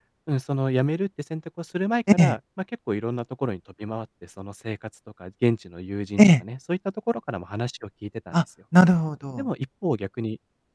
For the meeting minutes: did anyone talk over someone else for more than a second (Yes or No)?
No